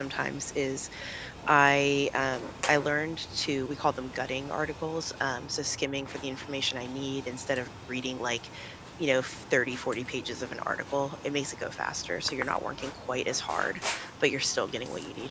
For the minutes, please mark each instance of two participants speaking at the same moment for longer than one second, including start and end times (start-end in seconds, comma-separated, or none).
none